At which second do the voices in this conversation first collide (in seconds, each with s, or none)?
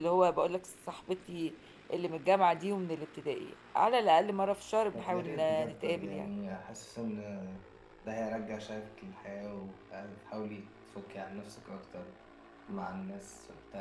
4.9 s